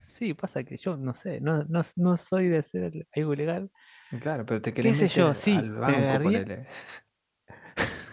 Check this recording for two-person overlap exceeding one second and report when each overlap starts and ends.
4.8-6.5

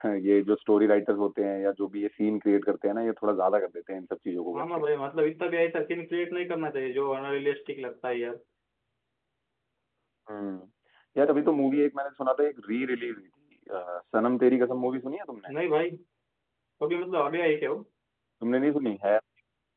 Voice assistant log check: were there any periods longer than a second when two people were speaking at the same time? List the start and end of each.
none

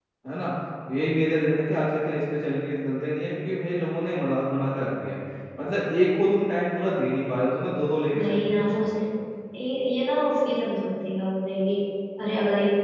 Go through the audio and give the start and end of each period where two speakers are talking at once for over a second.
none

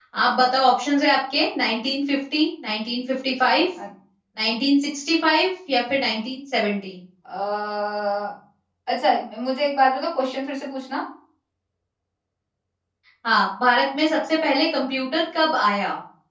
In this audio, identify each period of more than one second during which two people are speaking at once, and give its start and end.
none

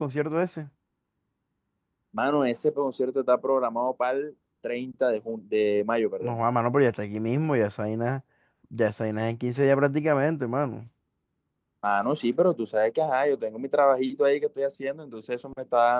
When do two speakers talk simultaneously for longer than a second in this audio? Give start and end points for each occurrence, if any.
none

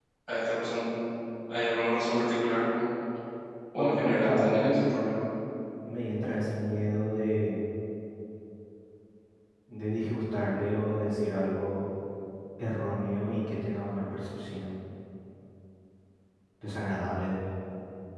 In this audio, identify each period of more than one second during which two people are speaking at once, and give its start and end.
3.8-5.1

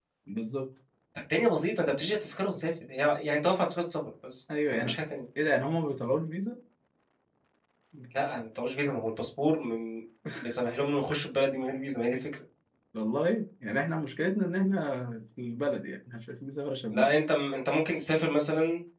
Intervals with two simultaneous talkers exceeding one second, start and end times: none

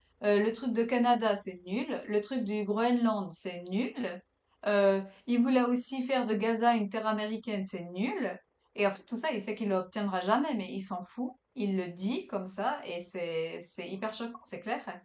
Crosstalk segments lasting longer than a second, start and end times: none

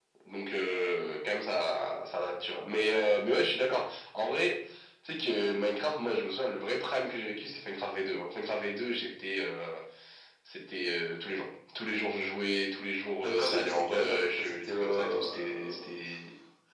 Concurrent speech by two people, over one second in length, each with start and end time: 13.2-15.8

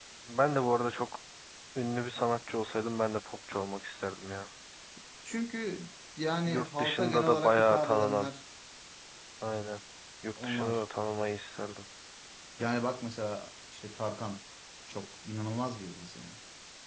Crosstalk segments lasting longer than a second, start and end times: 6.5-8.3

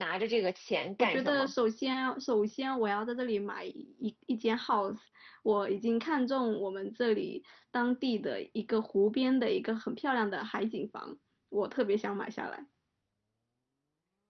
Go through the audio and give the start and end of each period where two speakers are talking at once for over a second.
none

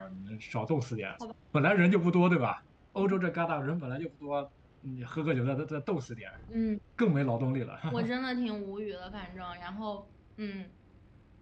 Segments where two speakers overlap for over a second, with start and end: none

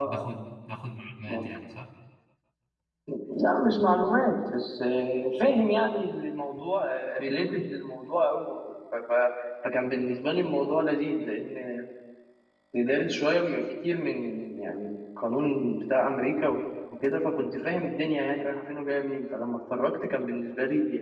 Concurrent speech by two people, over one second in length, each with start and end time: none

